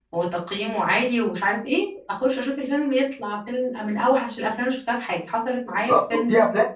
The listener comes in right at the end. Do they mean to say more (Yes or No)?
Yes